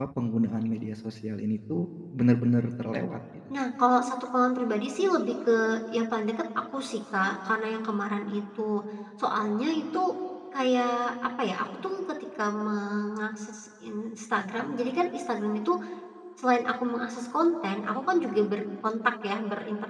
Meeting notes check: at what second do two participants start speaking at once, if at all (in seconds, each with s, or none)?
none